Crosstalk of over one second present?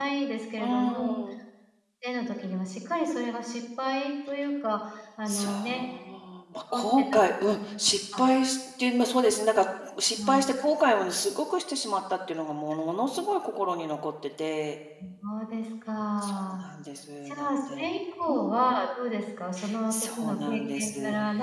Yes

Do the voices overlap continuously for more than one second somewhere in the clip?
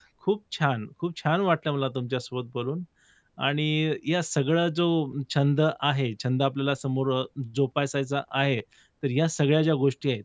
No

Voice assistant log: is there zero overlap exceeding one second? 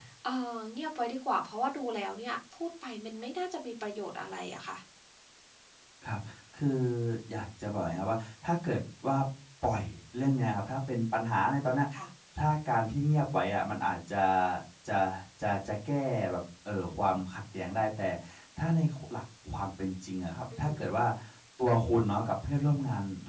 Yes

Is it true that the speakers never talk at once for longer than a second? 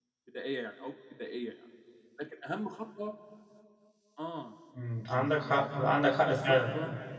Yes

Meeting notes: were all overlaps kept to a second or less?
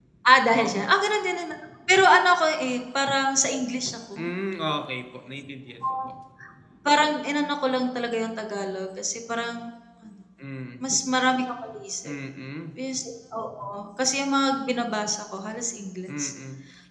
Yes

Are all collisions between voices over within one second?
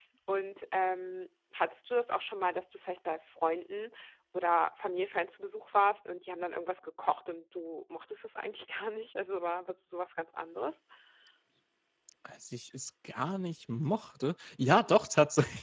Yes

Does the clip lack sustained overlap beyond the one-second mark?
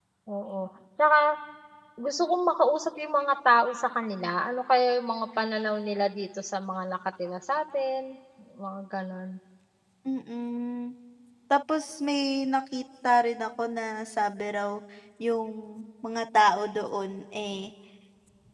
Yes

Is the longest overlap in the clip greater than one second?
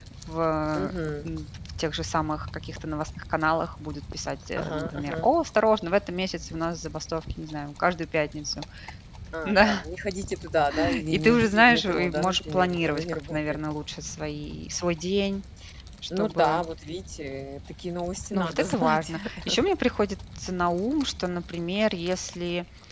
Yes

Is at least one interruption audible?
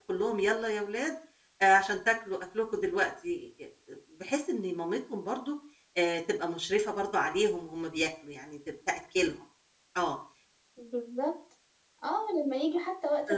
No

